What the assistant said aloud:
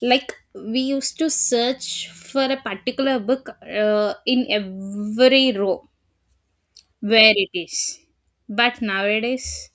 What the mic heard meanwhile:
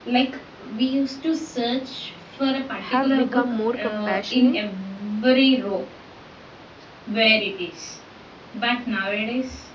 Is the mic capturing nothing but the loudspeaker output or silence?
No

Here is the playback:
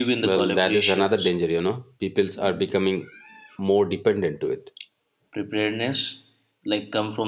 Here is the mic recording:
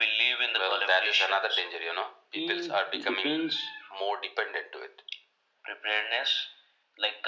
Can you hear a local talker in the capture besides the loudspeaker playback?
Yes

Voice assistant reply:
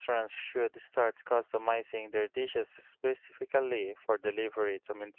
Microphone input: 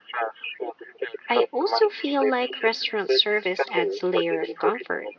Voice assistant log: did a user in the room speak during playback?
Yes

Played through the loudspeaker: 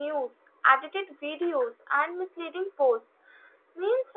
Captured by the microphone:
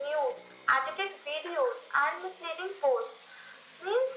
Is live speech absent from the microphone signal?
Yes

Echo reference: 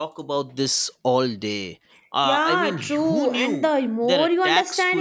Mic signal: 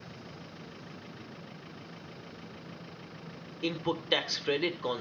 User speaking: Yes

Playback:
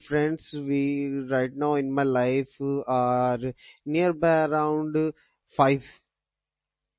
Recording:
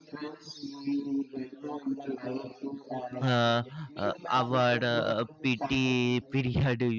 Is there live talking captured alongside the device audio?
Yes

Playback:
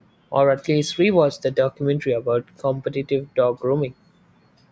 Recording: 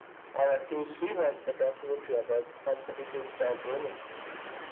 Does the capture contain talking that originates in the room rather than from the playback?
No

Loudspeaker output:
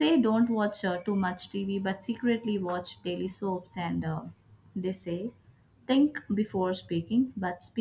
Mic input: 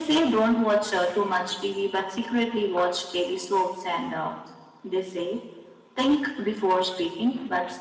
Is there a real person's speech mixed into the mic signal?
No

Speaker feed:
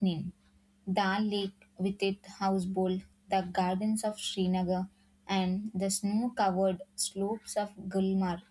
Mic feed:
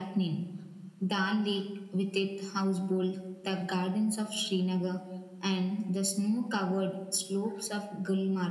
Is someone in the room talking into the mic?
No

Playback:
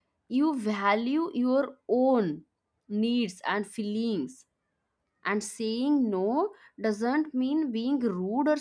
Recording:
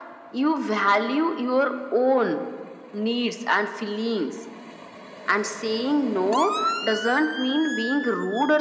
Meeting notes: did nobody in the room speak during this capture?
Yes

